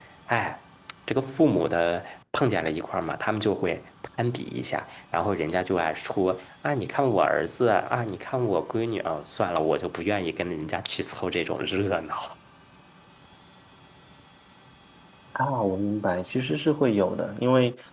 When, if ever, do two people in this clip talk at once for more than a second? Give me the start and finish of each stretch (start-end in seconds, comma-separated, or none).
none